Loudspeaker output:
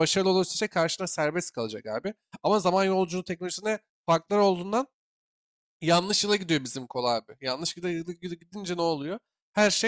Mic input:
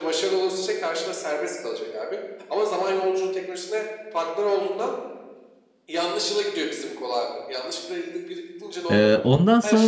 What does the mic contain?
both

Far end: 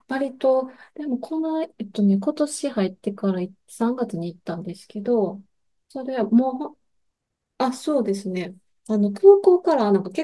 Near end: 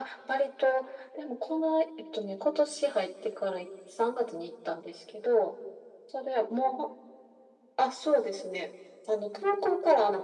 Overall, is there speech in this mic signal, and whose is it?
echo only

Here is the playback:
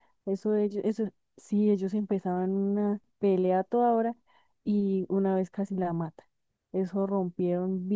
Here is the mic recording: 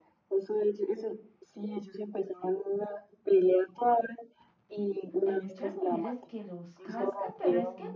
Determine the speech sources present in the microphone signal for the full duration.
both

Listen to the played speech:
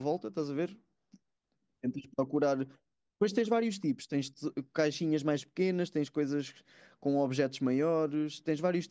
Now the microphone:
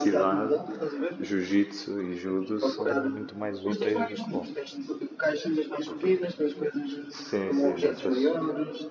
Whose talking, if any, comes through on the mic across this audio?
both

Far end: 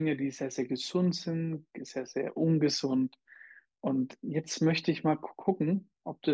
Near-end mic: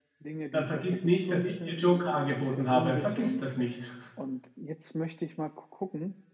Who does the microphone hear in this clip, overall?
both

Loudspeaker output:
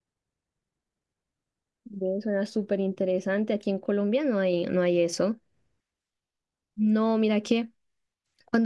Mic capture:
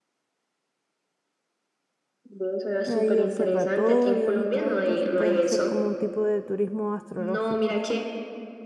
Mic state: both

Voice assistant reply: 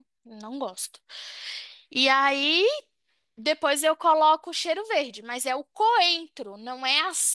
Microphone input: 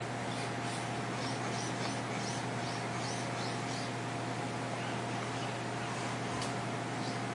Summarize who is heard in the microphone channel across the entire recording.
neither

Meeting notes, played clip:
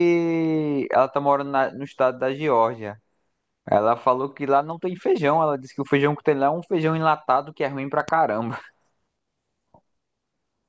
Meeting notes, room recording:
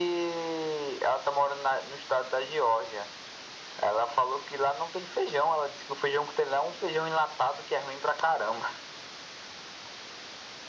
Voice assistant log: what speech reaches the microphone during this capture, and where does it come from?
echo only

